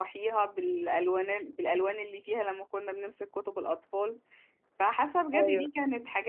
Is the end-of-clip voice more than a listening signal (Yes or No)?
No